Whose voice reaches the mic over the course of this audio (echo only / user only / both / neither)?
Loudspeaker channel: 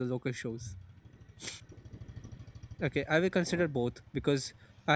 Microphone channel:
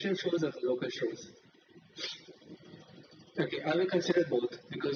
echo only